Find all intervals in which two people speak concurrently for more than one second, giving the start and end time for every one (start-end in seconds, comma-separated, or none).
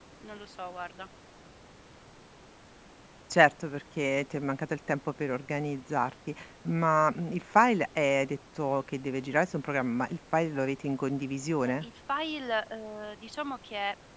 none